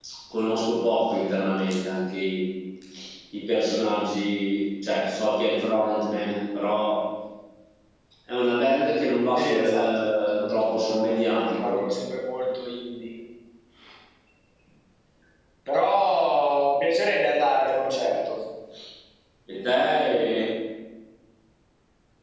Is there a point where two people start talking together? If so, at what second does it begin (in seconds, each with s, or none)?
9.3 s